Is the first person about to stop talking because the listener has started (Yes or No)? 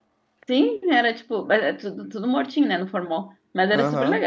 Yes